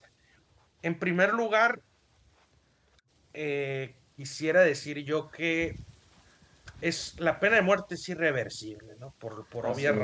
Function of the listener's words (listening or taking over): listening